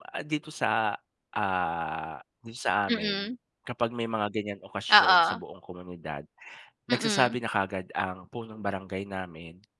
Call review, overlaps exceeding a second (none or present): none